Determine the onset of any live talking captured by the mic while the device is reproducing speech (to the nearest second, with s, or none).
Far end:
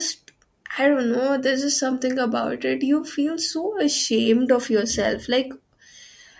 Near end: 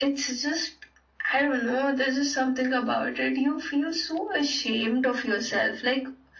none